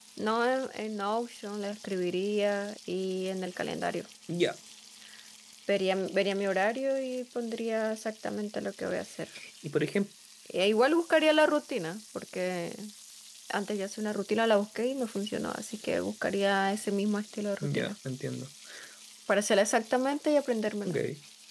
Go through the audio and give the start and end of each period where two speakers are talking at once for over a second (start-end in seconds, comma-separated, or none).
none